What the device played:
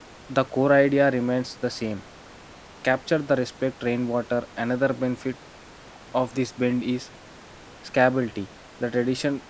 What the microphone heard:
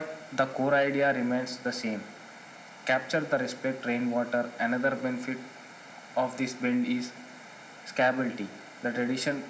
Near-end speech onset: none

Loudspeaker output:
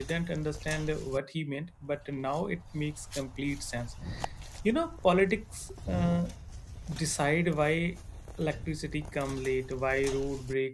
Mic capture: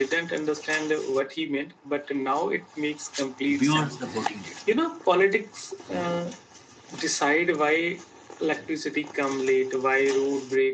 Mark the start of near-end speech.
3.6 s

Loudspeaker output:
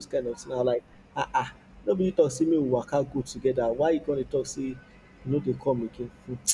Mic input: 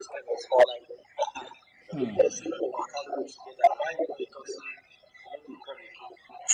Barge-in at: 1.9 s

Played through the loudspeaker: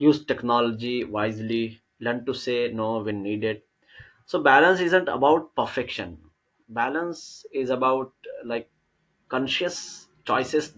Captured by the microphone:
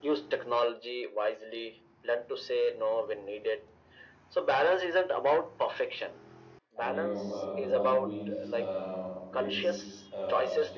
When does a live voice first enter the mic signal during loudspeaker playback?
6.7 s

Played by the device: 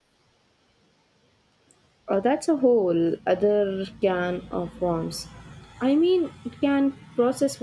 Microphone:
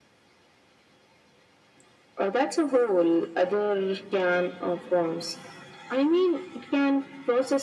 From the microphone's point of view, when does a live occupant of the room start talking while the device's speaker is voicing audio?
none

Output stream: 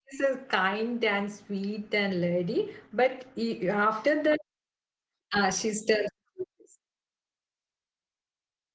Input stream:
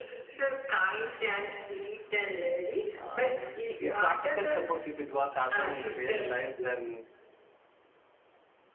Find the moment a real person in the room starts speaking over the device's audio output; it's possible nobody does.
3.0 s

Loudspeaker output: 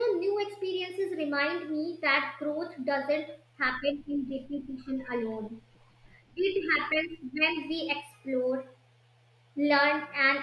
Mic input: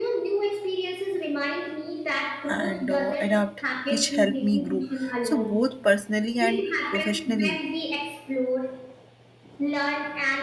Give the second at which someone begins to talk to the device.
2.5 s

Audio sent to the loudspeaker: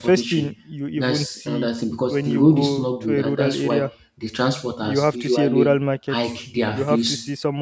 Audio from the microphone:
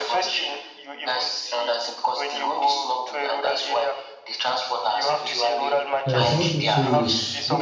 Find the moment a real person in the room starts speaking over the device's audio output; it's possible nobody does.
6.0 s

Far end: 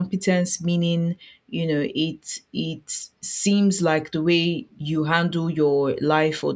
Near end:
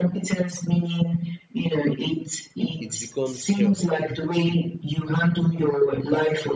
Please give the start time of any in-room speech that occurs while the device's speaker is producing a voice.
2.8 s

